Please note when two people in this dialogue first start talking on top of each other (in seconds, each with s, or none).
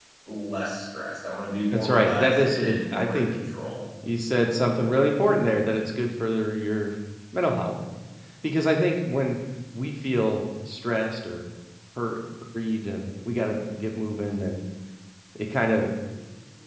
1.7 s